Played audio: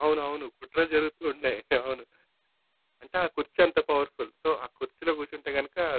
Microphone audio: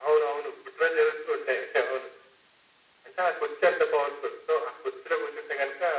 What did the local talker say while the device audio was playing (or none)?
none